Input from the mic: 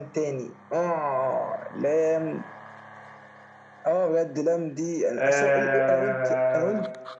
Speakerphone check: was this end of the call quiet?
No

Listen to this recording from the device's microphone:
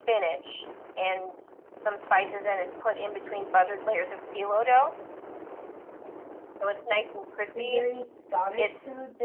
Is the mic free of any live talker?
No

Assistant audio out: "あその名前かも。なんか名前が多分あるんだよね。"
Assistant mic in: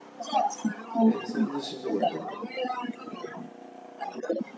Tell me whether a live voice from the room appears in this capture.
Yes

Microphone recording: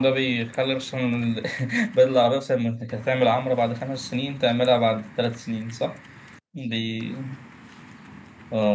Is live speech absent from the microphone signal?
No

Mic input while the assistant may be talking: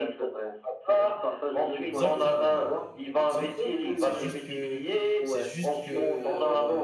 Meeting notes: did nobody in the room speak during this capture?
No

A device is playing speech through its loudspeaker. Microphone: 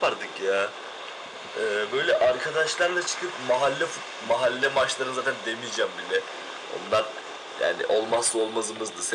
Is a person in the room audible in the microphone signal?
No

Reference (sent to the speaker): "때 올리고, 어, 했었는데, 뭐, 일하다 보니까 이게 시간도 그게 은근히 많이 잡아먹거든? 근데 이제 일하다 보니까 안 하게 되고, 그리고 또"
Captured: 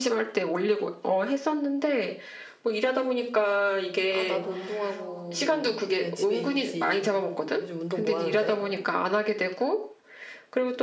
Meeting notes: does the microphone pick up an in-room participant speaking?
Yes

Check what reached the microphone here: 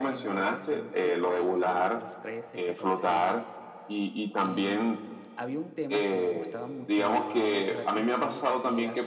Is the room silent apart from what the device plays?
No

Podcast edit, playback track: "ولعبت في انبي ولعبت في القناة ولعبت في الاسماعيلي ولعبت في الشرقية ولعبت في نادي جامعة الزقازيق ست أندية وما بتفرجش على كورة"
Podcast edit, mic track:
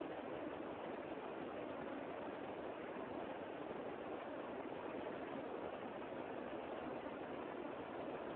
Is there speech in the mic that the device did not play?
No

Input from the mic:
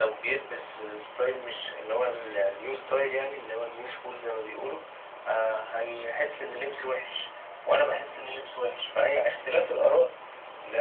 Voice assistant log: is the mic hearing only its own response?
Yes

